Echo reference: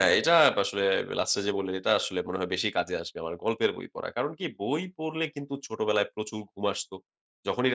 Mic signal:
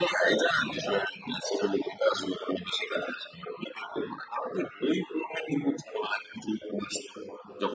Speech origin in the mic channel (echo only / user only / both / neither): echo only